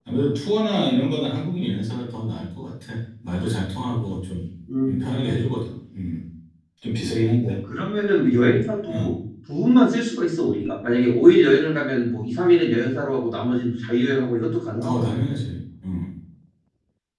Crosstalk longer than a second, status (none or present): none